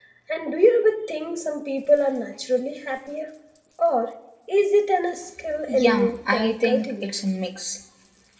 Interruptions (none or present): present